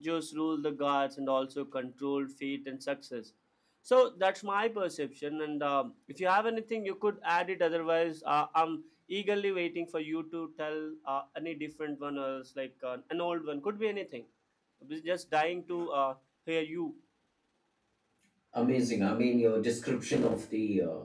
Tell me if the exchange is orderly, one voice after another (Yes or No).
Yes